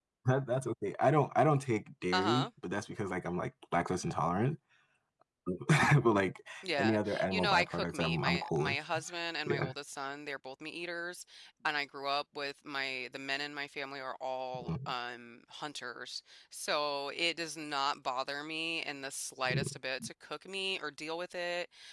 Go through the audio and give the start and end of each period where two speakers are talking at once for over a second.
6.8-8.8

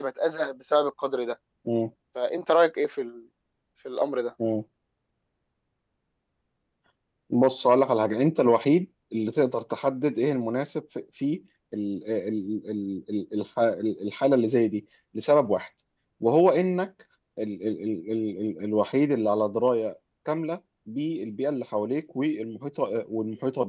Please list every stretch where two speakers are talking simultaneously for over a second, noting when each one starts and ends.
none

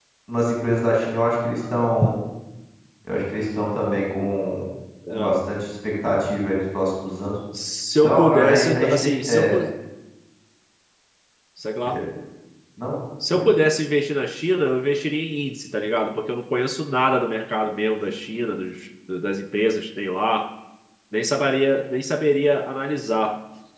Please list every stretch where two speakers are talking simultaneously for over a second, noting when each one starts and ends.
8.0-9.5

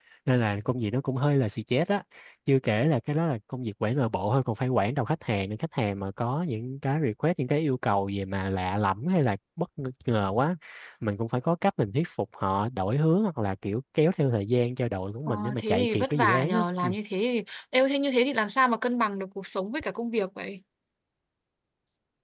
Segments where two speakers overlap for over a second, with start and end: 15.3-16.9

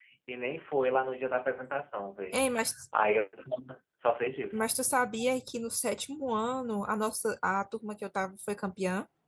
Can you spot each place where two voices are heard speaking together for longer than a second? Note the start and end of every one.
none

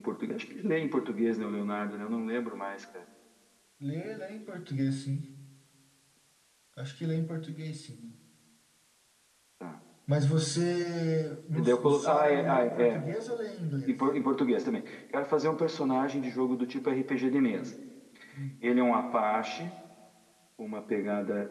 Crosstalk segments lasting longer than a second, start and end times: 11.5-13.0

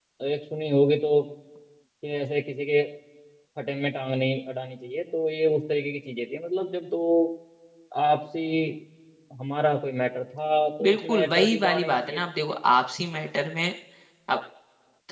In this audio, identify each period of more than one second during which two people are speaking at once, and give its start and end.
10.8-12.3

